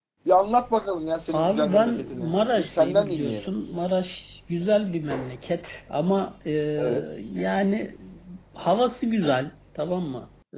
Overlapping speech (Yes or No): Yes